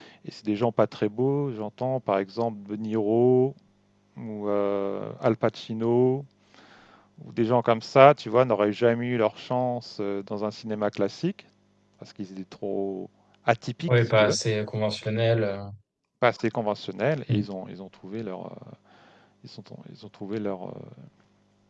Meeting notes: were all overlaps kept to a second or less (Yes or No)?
Yes